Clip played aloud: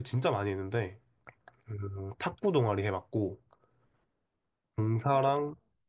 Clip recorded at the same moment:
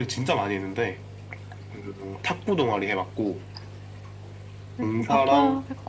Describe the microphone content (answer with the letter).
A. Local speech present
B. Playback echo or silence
A